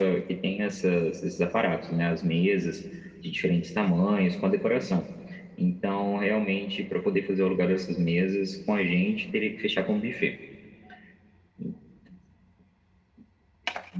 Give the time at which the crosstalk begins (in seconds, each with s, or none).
none